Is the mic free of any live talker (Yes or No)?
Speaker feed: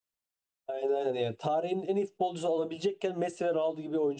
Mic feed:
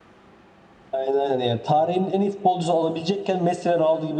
Yes